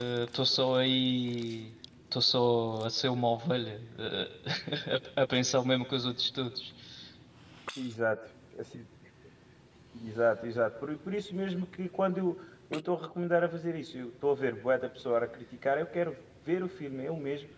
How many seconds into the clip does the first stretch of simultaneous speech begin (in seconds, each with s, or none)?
none